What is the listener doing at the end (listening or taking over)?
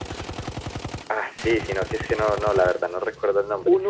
listening